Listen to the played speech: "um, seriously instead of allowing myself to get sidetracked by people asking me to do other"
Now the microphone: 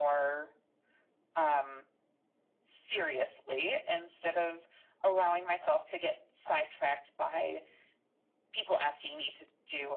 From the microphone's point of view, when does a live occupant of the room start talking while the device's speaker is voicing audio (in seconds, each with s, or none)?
none